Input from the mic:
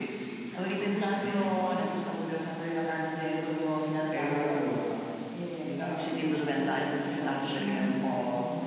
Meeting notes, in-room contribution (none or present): none